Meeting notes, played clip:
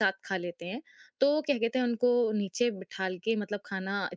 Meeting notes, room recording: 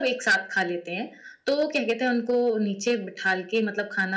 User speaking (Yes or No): No